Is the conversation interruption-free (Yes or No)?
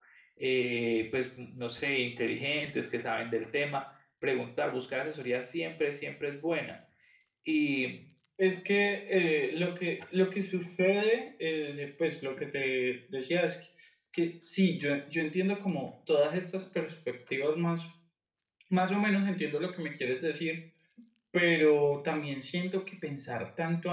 Yes